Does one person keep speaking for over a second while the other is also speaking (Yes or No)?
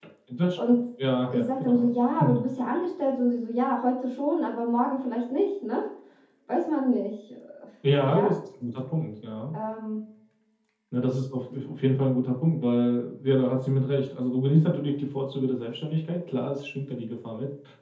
No